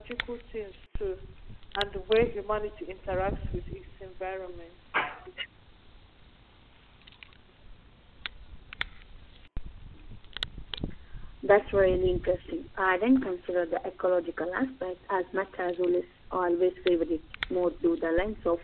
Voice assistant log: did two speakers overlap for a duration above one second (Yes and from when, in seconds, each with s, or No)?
No